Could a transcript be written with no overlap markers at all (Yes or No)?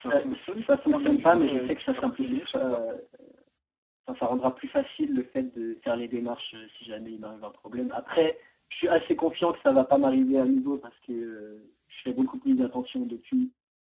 No